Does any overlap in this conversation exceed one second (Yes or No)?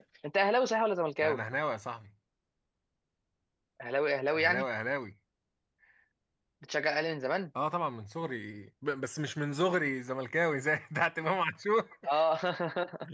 No